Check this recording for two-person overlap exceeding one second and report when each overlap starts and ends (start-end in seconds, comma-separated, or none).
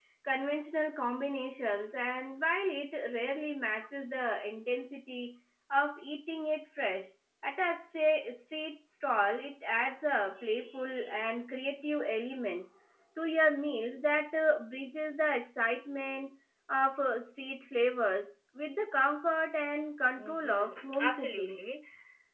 20.2-21.6